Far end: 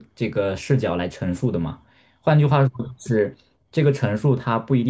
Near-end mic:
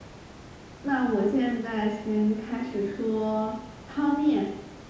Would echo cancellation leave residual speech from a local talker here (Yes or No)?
Yes